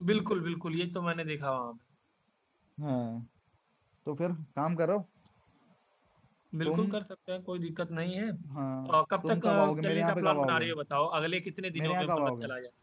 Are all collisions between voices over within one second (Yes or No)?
No